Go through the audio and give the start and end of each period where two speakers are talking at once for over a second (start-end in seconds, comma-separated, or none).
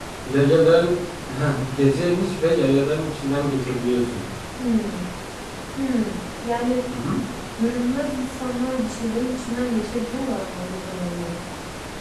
none